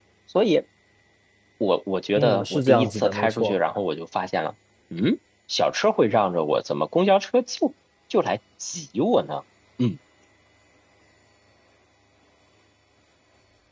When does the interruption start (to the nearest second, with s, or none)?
2 s